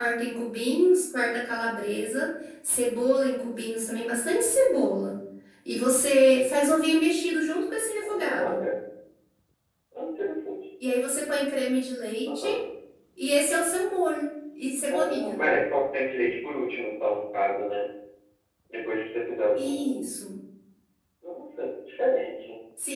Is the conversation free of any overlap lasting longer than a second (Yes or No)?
Yes